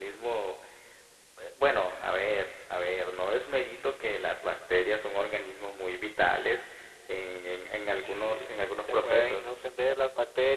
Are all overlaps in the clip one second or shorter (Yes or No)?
No